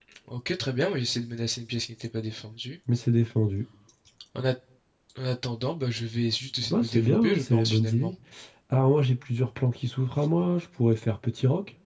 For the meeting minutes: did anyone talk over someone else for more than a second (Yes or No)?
Yes